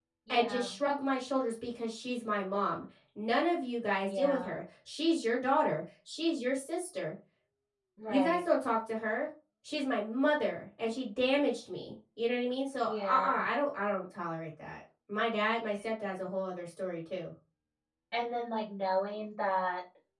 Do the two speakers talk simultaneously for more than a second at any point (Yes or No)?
No